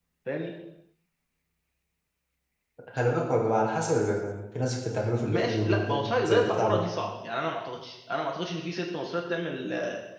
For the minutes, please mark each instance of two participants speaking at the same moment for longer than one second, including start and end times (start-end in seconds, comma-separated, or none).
5.2-6.9